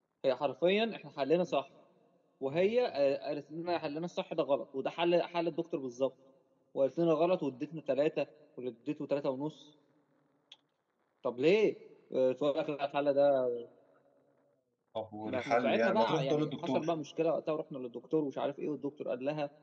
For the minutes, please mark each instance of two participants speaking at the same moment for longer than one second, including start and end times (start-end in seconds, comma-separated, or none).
15.3-16.9